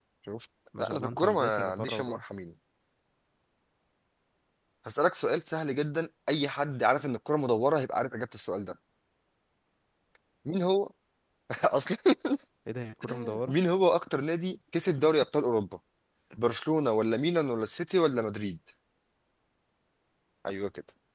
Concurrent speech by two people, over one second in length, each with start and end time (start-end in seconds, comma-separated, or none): 0.8-2.2